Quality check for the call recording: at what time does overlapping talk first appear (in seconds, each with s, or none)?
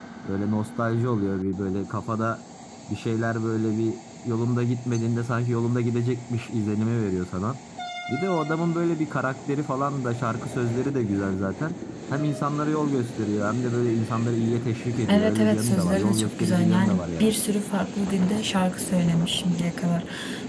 15.1 s